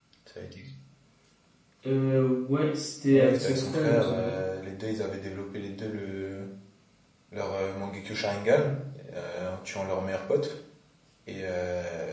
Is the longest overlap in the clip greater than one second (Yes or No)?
Yes